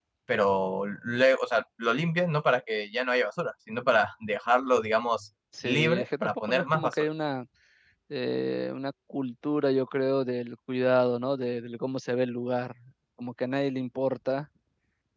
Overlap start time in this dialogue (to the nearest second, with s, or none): 6 s